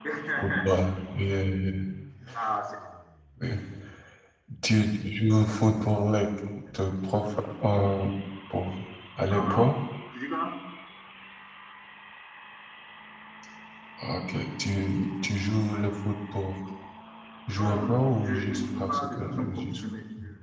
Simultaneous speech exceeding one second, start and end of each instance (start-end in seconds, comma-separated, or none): 17.5-19.6